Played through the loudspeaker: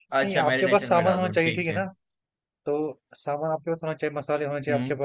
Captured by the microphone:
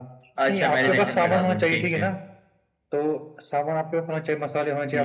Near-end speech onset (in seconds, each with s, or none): 0.8 s